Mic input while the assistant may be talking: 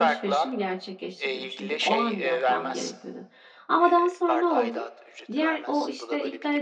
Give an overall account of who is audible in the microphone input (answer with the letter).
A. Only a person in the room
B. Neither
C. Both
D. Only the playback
C